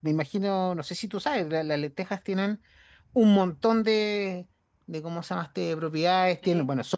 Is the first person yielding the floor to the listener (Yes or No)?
No